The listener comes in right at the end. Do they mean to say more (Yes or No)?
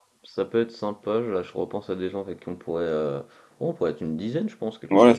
Yes